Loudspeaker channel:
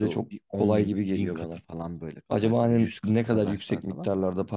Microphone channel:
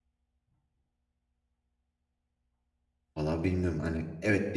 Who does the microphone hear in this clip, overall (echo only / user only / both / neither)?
user only